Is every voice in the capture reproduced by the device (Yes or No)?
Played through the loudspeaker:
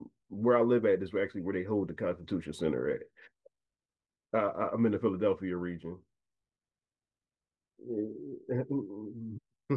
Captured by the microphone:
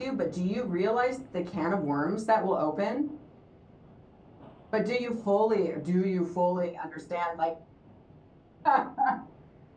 No